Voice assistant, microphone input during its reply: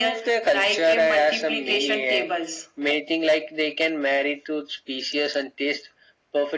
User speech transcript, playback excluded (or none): none